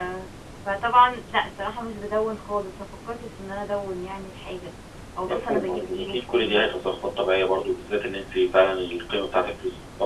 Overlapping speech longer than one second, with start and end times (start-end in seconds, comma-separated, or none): 5.3-6.9